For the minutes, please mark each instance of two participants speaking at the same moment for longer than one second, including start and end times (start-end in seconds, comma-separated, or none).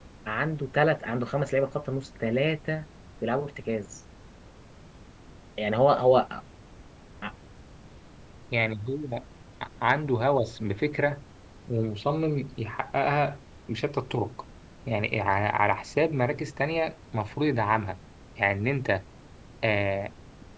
none